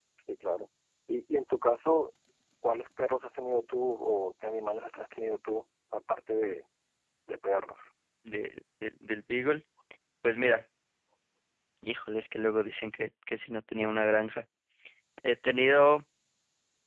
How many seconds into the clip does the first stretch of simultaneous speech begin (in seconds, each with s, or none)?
none